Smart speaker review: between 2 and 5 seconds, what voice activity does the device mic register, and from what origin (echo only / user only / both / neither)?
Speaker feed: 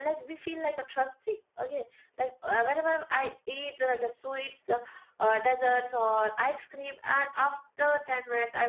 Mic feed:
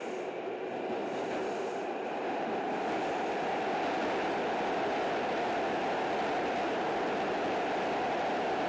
neither